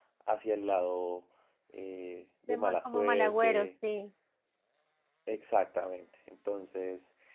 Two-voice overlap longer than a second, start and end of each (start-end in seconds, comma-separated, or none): 2.5-3.7